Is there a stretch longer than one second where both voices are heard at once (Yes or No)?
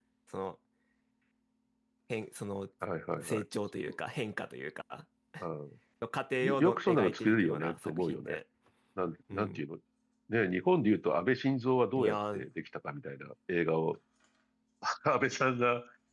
Yes